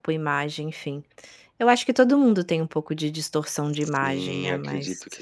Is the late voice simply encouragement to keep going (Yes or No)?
No